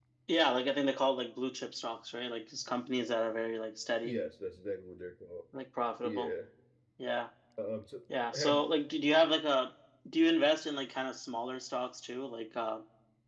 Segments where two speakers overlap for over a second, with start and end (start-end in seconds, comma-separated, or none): none